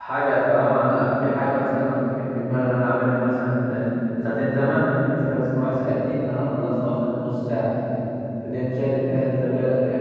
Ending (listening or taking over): listening